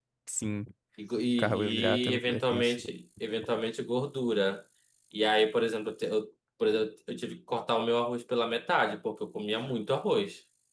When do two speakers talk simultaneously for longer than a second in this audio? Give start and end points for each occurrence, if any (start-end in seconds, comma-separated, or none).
1.4-2.8